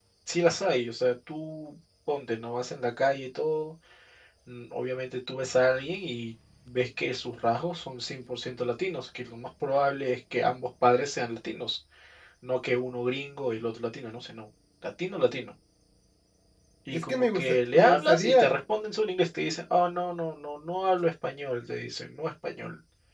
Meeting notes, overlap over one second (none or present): present